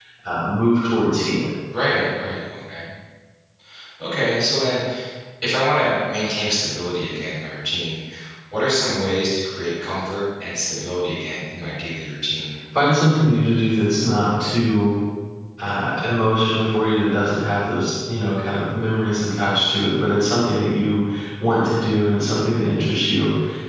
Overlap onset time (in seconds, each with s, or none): none